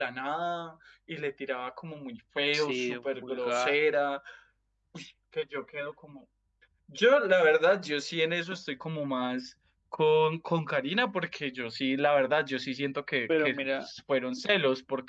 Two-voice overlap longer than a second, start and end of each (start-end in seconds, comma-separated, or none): 2.5-3.8